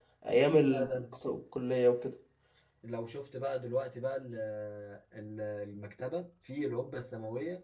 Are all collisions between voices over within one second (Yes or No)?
Yes